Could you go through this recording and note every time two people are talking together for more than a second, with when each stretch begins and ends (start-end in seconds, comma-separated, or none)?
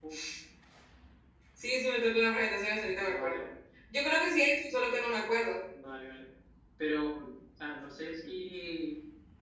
none